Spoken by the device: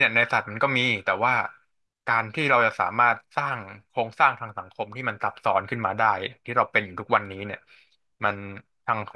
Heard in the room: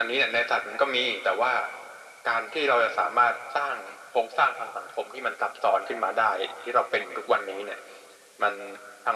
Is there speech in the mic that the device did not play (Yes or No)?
No